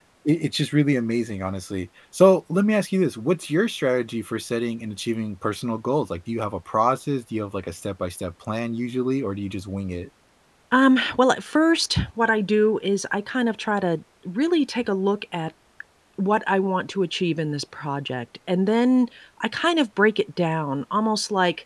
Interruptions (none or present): none